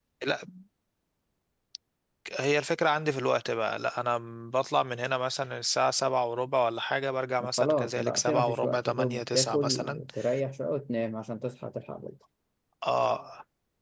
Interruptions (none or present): present